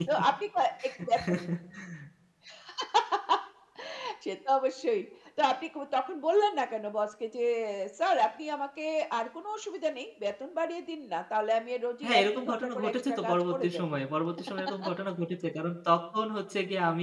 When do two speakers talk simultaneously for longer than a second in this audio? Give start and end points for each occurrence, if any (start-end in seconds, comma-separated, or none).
12.0-13.9